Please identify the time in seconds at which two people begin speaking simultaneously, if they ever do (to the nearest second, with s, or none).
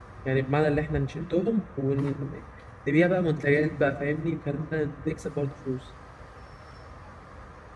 none